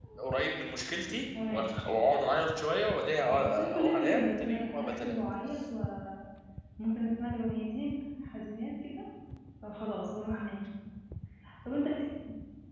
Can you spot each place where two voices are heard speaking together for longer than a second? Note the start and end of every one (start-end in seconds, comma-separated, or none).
3.3-5.2